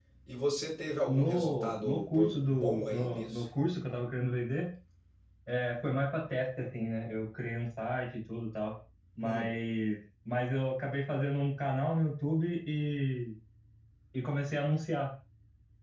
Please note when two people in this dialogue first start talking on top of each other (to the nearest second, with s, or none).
1 s